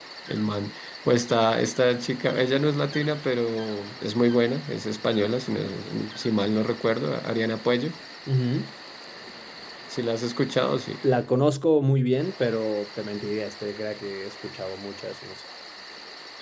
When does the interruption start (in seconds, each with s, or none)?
none